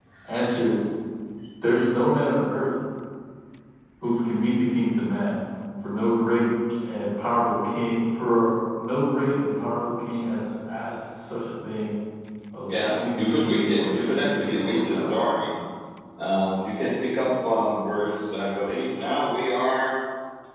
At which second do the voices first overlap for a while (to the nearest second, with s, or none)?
13 s